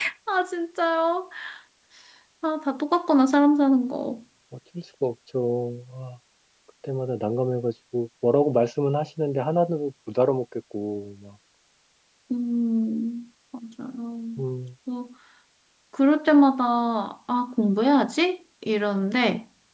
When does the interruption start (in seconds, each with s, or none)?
none